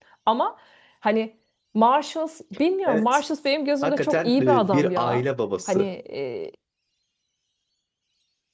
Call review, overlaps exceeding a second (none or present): present